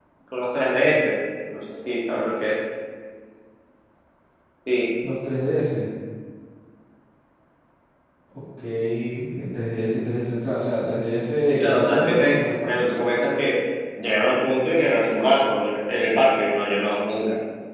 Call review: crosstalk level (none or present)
present